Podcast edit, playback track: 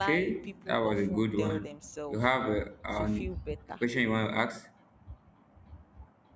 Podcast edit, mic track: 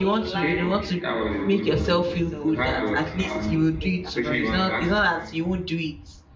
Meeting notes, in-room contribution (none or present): present